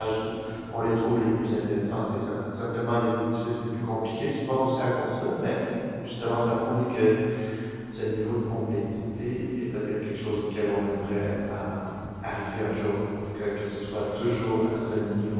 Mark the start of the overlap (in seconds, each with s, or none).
none